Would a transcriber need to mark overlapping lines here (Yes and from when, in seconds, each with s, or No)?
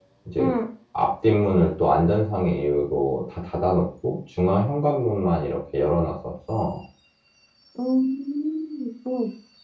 No